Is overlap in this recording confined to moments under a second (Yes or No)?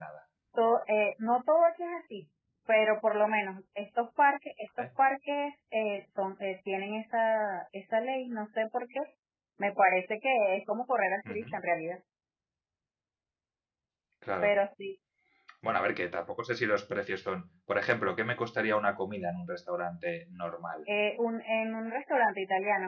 Yes